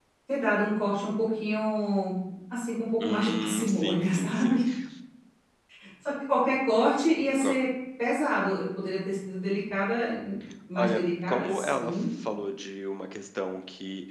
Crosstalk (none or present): present